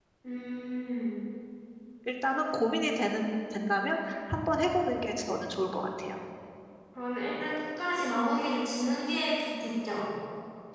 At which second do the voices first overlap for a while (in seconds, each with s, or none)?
none